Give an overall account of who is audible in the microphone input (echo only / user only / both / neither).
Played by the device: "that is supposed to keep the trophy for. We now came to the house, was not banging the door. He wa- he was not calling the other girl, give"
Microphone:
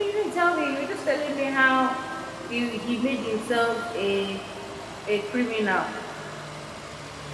user only